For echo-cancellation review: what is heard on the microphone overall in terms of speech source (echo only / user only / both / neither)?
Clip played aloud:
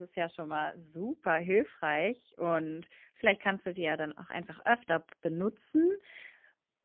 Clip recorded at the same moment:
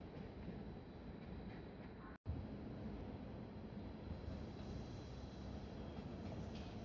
neither